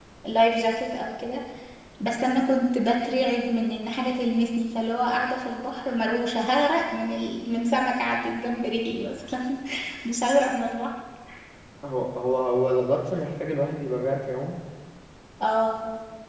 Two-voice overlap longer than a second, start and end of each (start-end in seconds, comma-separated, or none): none